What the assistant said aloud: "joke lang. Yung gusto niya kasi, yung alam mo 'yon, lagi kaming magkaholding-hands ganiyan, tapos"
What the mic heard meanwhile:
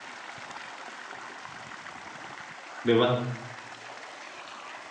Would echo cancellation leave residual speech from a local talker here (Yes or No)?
Yes